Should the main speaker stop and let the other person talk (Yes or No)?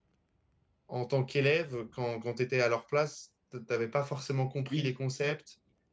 No